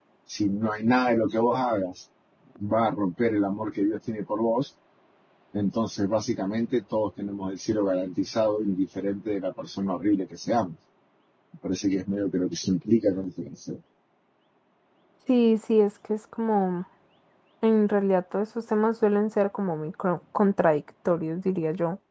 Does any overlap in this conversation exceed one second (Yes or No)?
No